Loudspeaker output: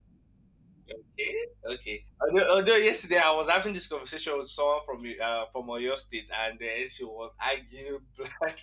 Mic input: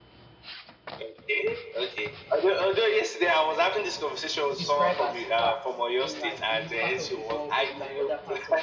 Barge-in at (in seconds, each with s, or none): 4.5 s